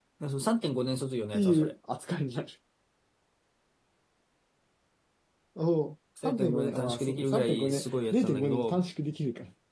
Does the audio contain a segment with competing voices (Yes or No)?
Yes